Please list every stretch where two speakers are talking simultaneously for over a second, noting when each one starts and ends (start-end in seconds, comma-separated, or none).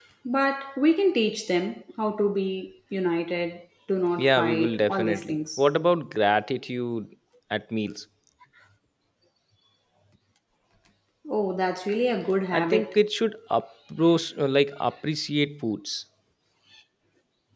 4.2-5.6